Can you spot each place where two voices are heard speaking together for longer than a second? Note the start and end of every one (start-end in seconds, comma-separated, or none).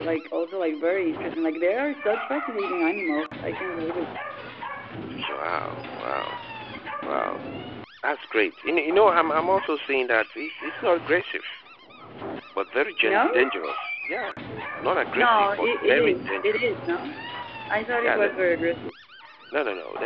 15.1-16.8